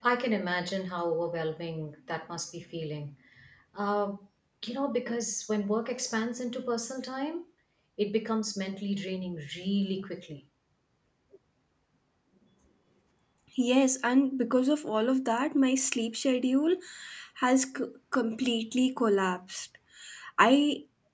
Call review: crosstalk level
none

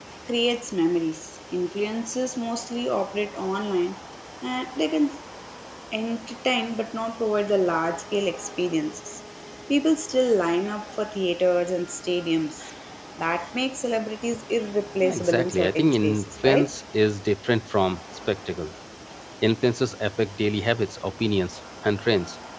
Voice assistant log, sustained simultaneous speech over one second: present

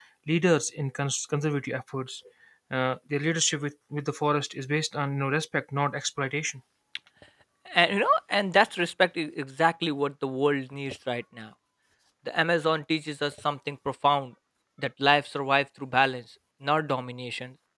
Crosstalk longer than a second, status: none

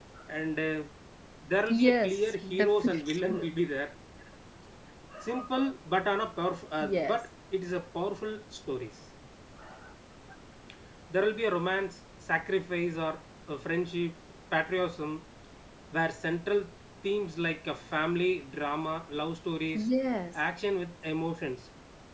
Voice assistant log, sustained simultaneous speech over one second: present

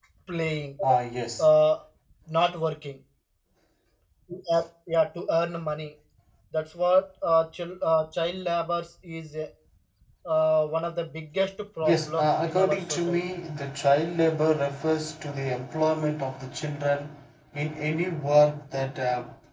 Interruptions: present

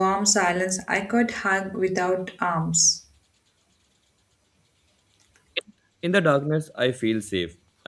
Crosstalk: none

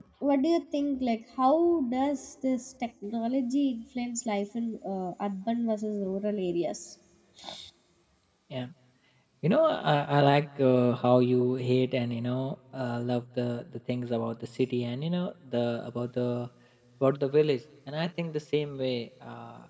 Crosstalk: none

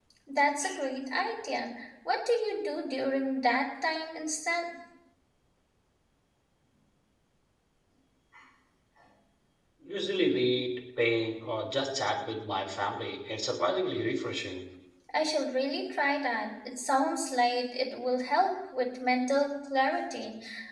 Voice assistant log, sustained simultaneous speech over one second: none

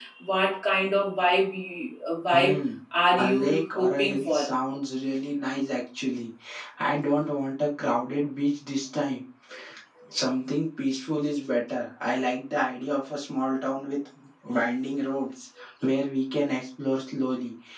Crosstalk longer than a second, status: present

